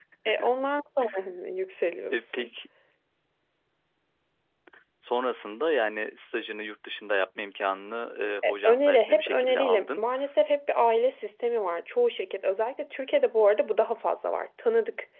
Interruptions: present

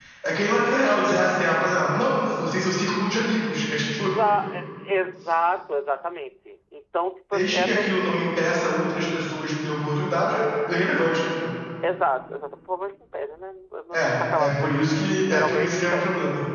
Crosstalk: present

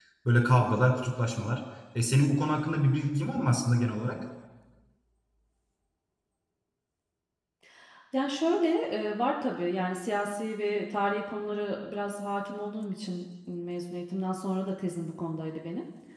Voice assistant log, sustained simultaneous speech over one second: none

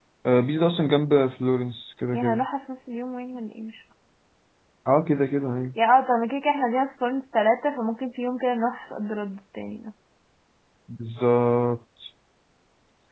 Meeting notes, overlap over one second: none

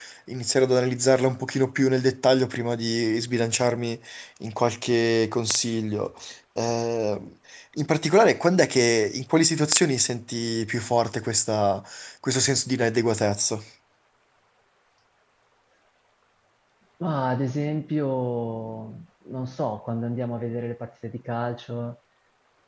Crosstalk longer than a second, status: none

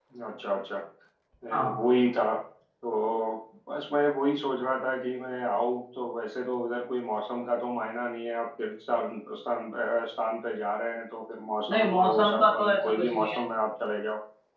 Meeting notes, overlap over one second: present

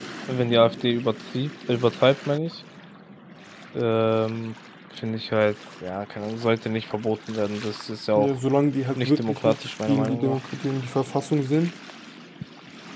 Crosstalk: present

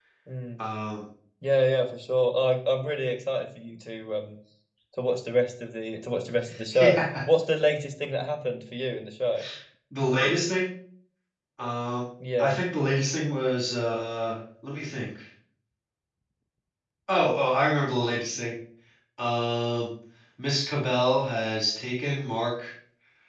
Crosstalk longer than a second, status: none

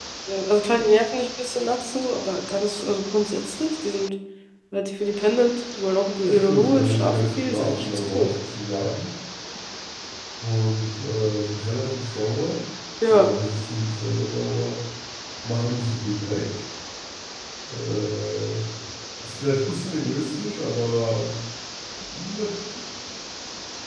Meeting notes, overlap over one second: present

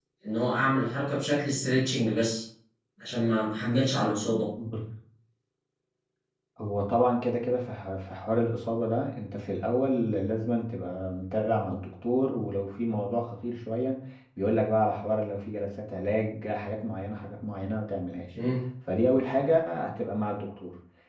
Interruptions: none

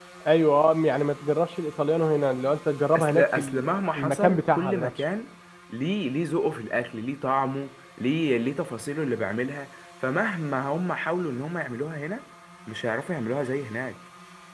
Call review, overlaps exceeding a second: present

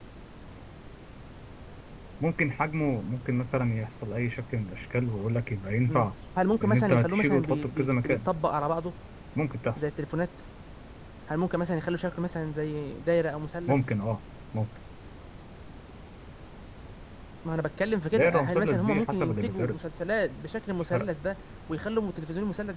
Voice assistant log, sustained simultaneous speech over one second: present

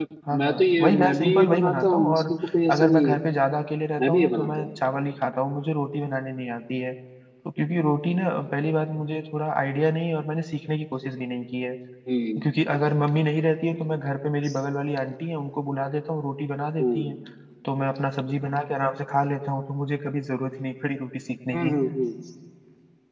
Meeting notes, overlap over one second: present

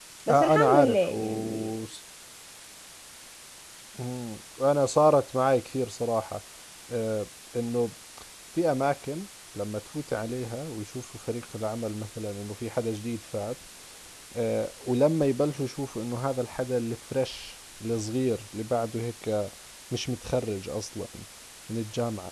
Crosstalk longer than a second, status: present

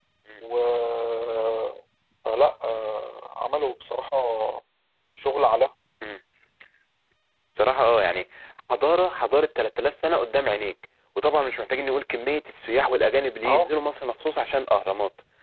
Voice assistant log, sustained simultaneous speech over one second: none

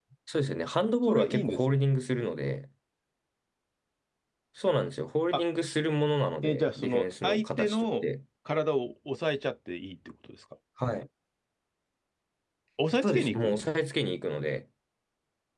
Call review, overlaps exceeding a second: present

